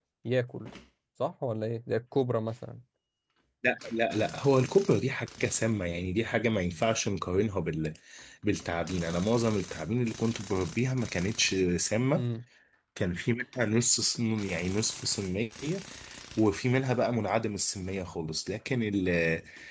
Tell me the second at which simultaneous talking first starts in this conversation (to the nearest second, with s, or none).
none